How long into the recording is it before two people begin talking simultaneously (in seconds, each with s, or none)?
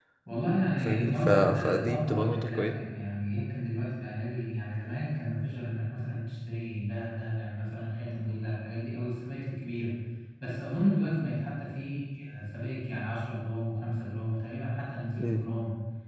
0.8 s